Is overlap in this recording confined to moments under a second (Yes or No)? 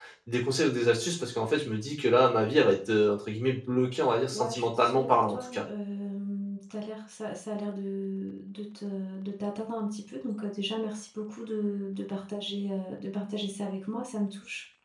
No